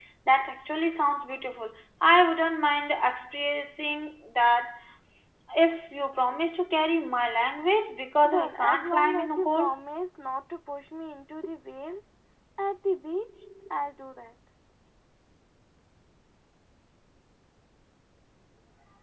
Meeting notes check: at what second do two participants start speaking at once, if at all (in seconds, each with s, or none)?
8.2 s